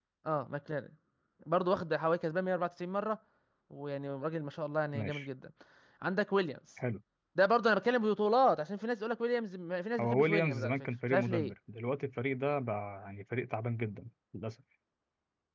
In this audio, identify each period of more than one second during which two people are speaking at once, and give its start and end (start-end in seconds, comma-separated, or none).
10.0-11.5